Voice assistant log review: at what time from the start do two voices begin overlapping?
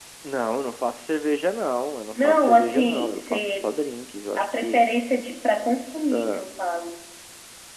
2.1 s

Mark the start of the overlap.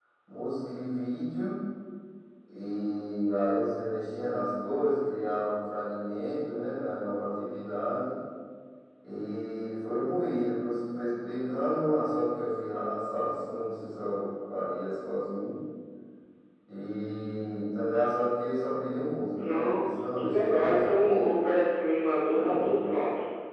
19.4 s

